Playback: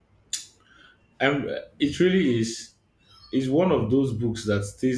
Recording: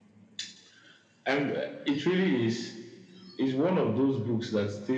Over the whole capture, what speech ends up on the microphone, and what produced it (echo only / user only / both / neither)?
echo only